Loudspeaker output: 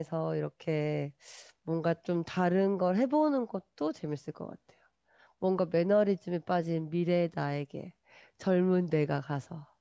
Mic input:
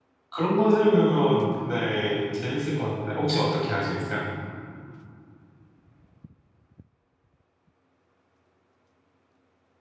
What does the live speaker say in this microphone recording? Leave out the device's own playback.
그런 컨셉이면, 네, 재밌을 것 같은데. 혹시 어떻게 하시겠어요?

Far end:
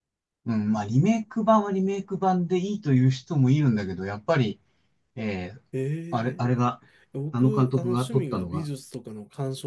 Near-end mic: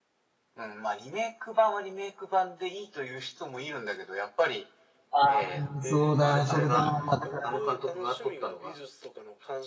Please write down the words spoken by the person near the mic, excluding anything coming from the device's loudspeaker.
あーそうだ、それだ。だから

